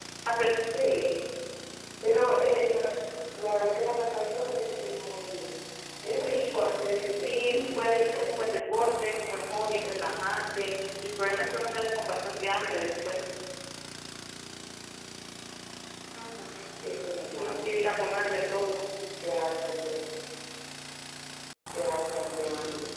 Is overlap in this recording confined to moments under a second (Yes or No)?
No